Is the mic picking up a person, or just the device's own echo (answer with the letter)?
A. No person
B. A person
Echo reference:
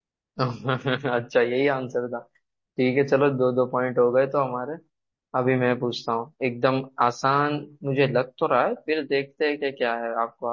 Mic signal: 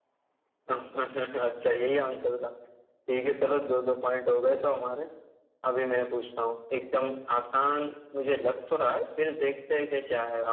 A